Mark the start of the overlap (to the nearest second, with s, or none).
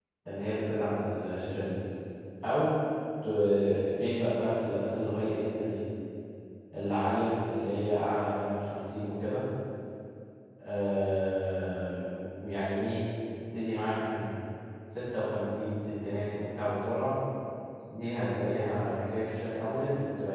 none